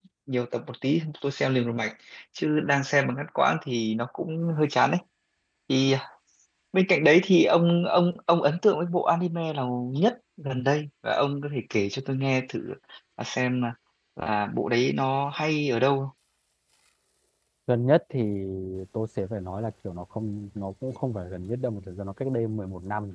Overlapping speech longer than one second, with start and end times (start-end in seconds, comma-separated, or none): none